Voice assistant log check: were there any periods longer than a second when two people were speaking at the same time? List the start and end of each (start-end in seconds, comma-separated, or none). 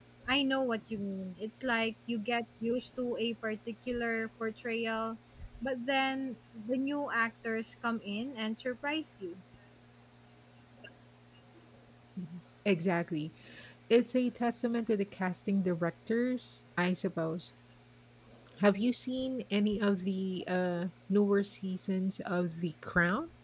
none